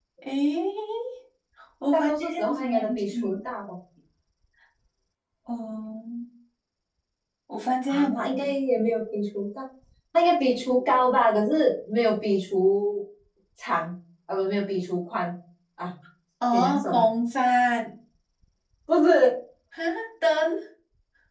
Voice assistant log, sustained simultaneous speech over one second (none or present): present